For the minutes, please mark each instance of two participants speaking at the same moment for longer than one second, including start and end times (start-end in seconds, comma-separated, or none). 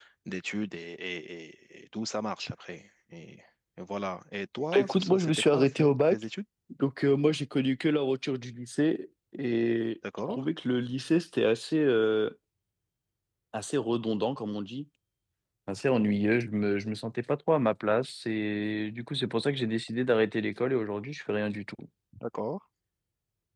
4.7-6.2